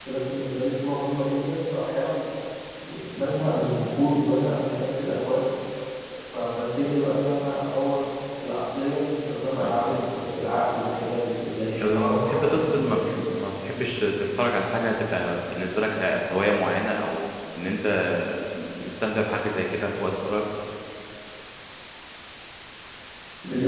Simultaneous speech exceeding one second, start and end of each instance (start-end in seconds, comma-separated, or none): 11.8-13.2